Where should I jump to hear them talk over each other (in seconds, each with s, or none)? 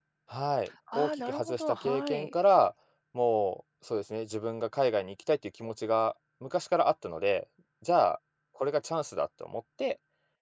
0.9 s